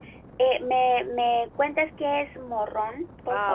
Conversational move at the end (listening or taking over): taking over